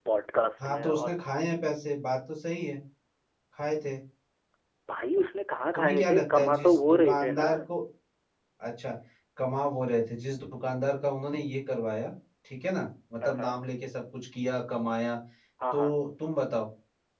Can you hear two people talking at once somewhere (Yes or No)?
Yes